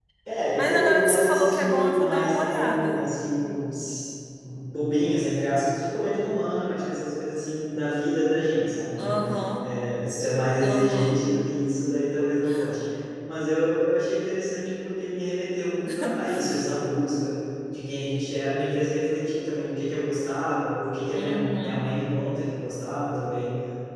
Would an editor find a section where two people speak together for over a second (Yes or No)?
Yes